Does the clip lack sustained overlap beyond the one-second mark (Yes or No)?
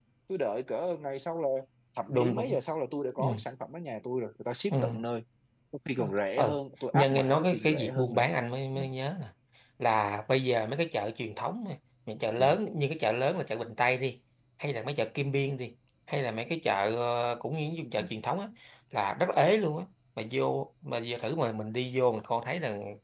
No